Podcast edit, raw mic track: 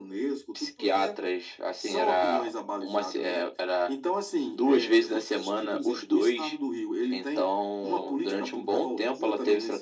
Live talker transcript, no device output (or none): none